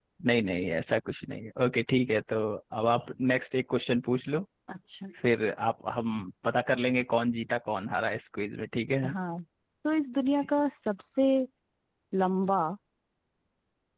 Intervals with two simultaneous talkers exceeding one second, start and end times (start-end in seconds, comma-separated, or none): none